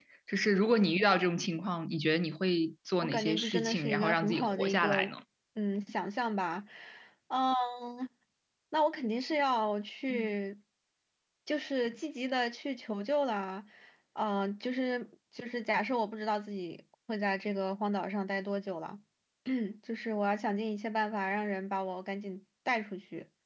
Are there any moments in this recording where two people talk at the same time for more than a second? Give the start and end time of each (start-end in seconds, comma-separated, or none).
3.0-5.0